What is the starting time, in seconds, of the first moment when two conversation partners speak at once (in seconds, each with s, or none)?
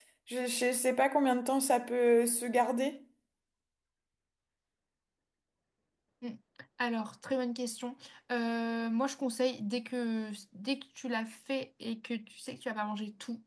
none